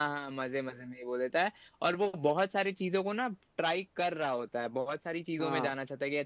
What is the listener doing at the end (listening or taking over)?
listening